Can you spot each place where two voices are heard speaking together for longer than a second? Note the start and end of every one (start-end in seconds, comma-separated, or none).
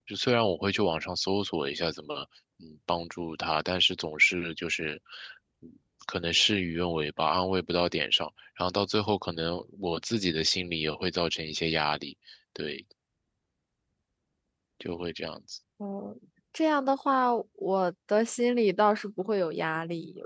none